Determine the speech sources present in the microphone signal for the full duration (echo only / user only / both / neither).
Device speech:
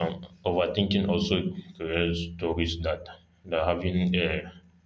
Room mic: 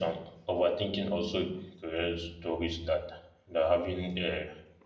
echo only